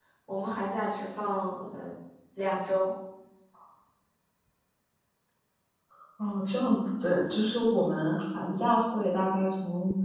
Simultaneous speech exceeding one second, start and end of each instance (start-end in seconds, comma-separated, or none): none